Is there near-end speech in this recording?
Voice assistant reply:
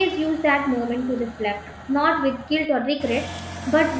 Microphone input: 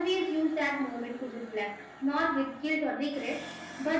No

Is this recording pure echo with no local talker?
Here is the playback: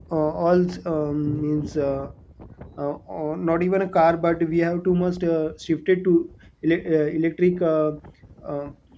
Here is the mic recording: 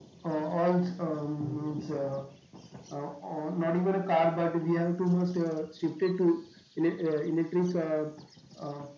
Yes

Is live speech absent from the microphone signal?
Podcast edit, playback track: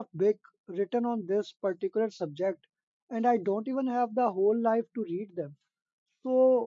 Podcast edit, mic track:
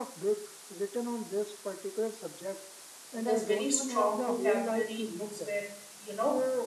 No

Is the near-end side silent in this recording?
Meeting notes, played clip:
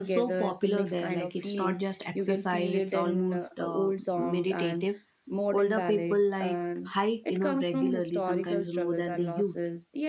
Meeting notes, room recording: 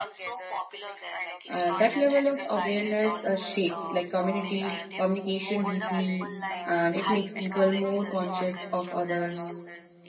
No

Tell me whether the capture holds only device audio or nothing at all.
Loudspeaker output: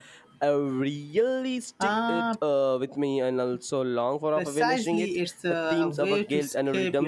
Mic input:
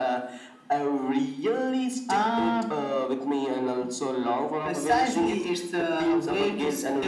Yes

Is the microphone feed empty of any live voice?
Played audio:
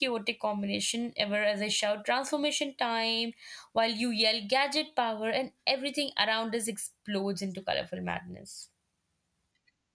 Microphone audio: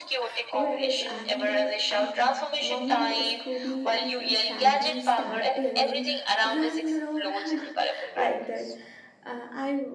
No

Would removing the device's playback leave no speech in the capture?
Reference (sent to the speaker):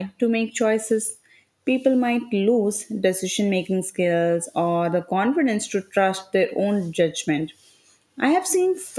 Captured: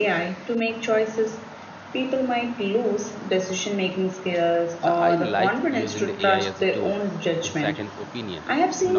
No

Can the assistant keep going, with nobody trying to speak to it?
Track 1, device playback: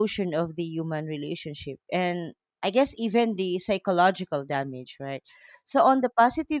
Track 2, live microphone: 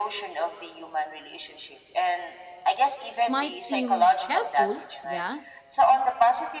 No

